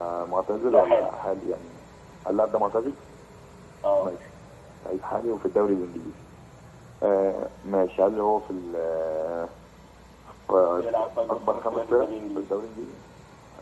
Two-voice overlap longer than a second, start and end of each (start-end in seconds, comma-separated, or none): 10.8-12.5